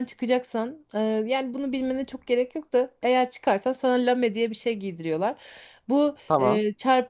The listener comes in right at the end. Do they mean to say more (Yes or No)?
No